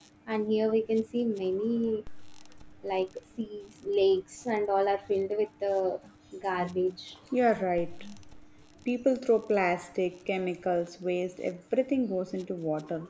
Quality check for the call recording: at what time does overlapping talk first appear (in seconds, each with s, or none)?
none